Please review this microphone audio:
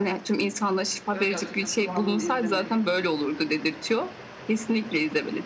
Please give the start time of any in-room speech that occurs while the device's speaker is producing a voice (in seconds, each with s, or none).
1.1 s